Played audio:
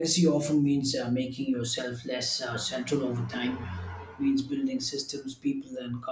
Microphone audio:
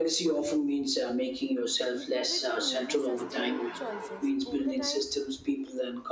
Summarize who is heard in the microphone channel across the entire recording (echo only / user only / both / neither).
both